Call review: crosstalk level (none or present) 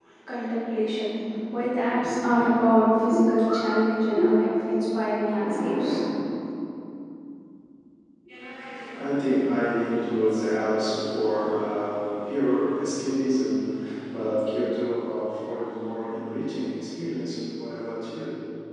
none